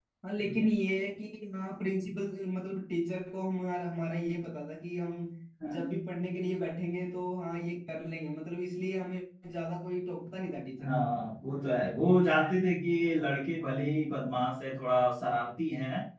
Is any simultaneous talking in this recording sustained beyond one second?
No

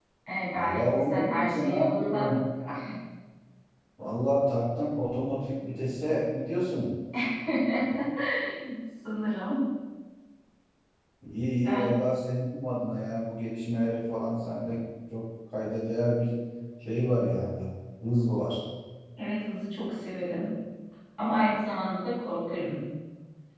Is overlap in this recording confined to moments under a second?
No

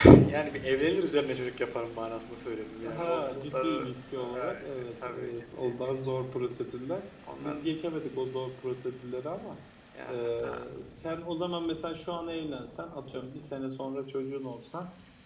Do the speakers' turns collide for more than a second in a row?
Yes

